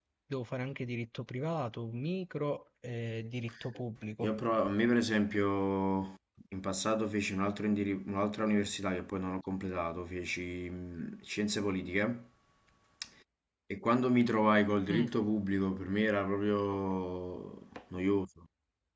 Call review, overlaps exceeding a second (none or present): none